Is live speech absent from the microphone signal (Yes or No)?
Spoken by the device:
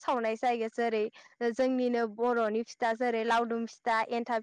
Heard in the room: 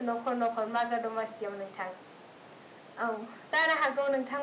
No